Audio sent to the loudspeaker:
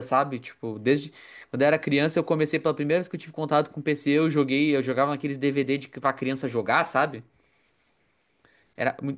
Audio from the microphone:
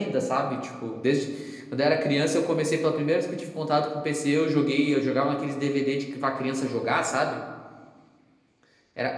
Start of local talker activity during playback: none

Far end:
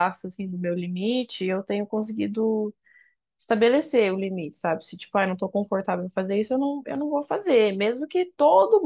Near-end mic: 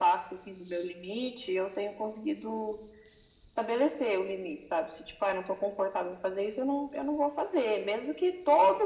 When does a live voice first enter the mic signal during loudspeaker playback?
none

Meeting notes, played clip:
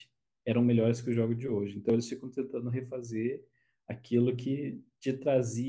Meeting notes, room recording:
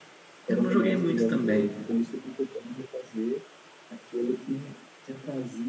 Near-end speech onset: 0.5 s

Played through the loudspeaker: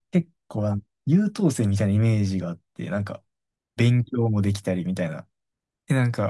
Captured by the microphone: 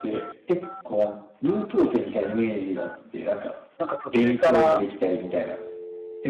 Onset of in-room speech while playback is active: 3.8 s

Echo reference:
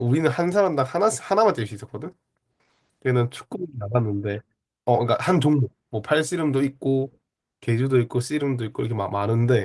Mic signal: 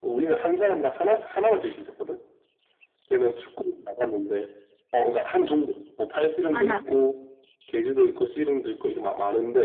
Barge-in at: 6.5 s

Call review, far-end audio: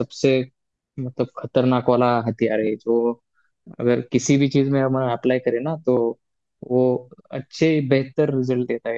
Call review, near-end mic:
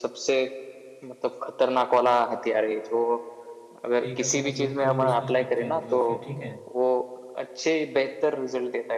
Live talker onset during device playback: 4.0 s

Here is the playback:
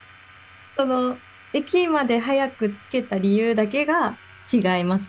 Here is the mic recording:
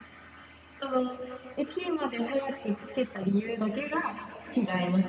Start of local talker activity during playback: none

